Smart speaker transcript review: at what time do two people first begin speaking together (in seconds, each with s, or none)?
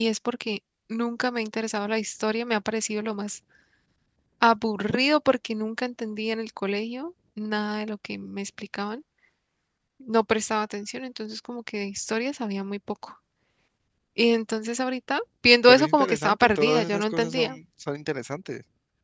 15.7 s